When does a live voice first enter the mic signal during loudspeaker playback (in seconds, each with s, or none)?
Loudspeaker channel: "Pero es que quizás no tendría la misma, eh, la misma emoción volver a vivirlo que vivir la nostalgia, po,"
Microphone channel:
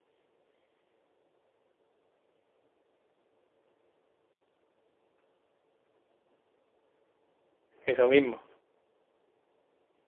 7.8 s